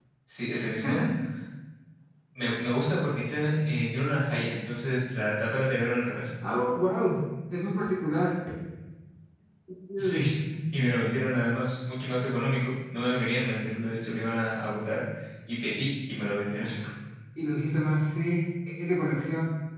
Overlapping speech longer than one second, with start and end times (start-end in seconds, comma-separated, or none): none